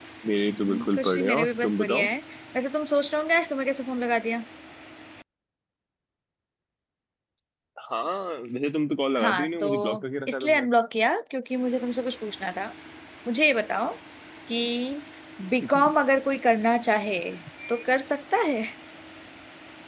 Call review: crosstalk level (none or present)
present